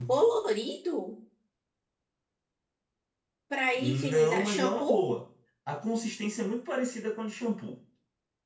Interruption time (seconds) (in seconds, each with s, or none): 3.8 s